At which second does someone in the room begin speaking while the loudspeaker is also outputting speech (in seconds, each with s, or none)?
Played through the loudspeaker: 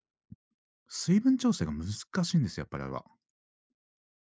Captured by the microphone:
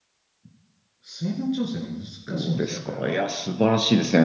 2.2 s